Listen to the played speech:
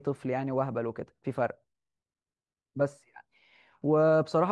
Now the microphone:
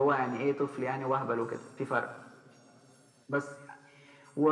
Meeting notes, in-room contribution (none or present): none